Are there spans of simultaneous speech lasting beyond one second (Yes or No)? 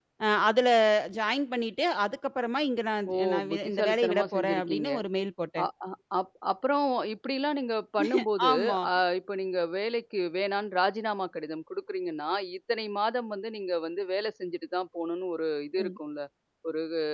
Yes